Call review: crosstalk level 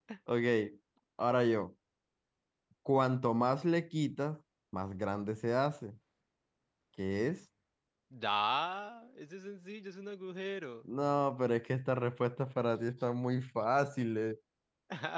none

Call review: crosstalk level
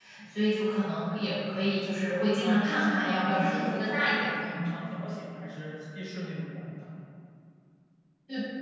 present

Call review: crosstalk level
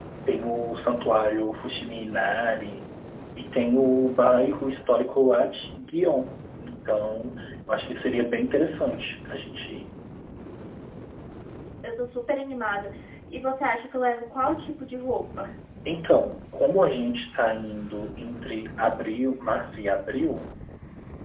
none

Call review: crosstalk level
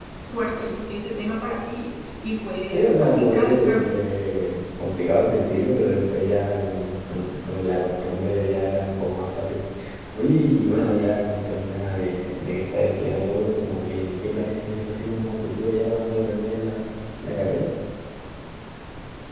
present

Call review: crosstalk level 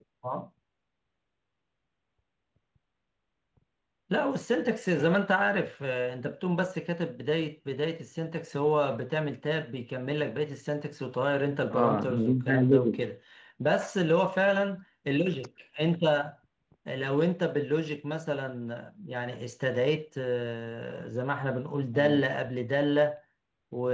present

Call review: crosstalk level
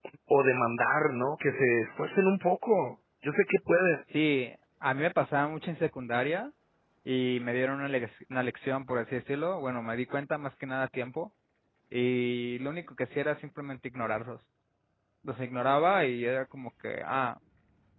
none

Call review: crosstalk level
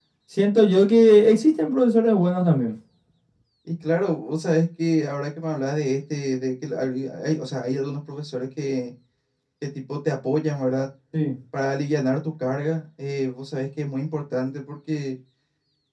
none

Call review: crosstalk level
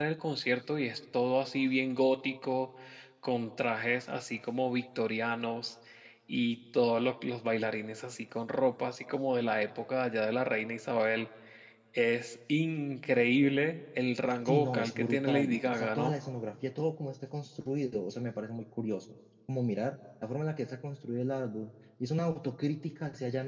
present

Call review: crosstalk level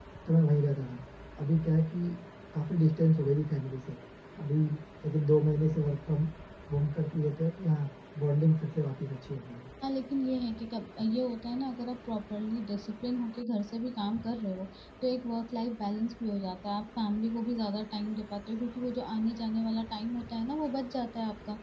none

